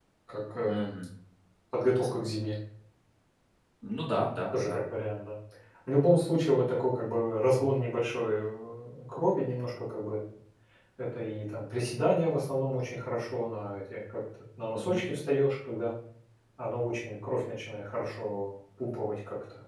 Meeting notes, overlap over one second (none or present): none